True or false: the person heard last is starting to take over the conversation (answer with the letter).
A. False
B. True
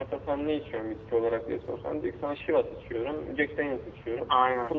A